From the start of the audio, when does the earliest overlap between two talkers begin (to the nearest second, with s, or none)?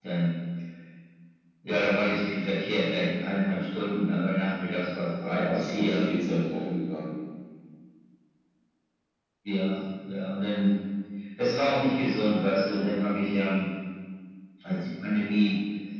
5 s